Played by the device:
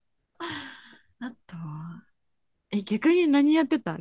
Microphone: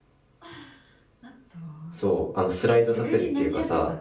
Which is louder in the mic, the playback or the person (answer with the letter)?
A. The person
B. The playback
A